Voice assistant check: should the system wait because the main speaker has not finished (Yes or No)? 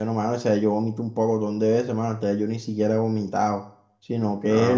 Yes